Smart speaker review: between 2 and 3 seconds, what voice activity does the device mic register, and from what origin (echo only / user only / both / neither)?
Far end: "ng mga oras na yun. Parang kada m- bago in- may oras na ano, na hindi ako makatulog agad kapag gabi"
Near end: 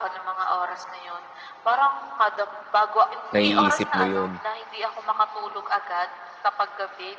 echo only